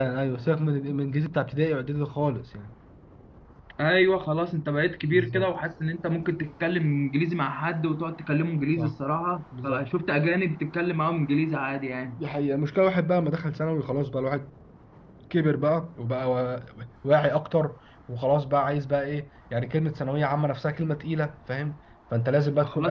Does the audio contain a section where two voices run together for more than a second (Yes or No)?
No